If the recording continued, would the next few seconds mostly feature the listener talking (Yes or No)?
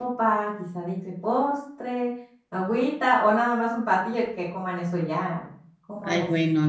Yes